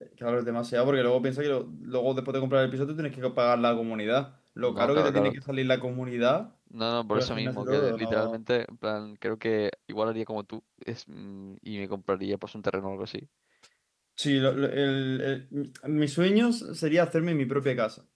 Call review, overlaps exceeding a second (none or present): present